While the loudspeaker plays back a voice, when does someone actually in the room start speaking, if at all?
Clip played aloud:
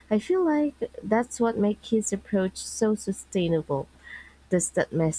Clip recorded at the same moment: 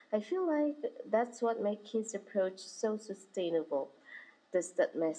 none

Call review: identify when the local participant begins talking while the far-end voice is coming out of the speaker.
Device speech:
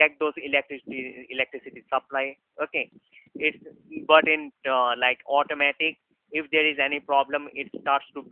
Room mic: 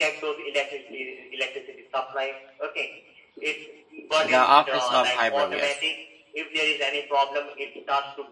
4.2 s

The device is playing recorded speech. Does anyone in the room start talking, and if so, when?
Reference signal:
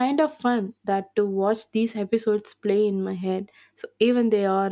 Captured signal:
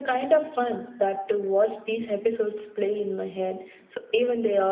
none

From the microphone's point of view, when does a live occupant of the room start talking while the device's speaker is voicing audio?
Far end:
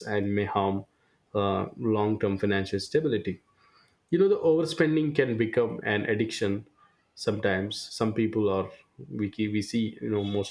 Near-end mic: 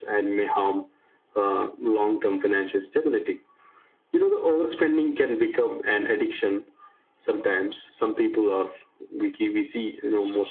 none

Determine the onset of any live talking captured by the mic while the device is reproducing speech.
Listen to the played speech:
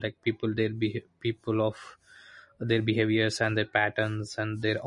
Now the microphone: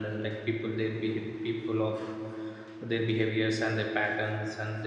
none

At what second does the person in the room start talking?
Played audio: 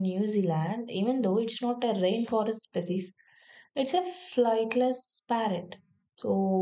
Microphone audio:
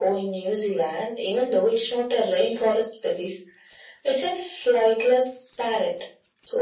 none

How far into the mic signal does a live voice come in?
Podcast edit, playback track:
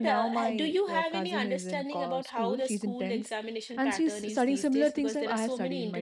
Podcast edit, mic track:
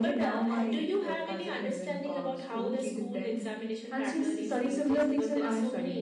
none

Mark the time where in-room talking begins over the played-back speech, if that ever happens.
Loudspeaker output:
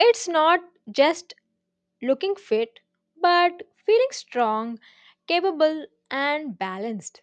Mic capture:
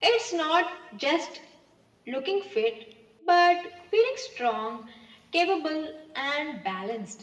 none

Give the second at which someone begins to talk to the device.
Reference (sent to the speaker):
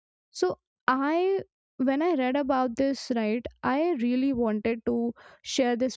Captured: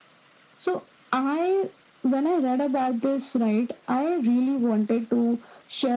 none

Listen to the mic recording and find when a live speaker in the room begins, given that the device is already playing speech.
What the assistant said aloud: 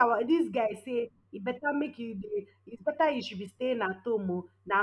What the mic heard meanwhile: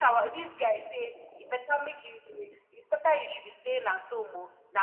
none

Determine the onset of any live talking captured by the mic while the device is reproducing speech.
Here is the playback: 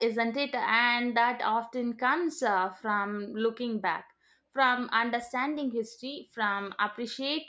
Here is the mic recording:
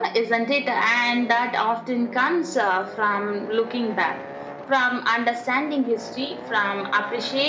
none

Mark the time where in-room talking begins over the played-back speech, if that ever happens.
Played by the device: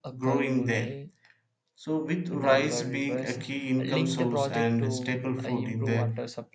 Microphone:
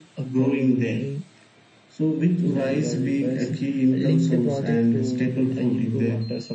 none

